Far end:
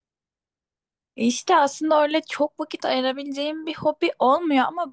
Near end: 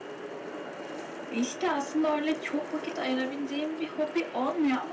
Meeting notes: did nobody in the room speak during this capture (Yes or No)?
Yes